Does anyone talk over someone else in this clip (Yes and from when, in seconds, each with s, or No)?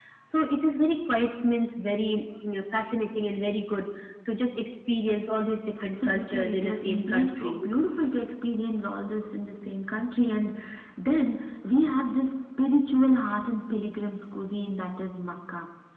Yes, from 5.8 s